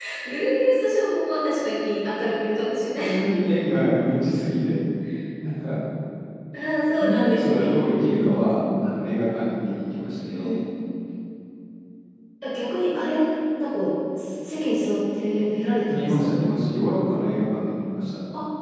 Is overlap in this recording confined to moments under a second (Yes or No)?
No